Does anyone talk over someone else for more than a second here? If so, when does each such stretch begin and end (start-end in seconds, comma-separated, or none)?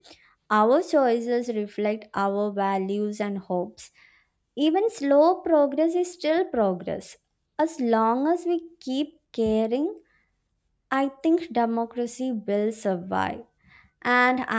none